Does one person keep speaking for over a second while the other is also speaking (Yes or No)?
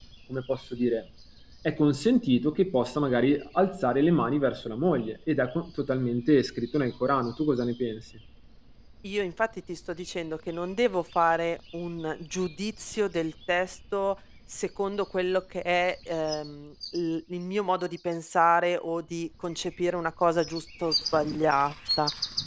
No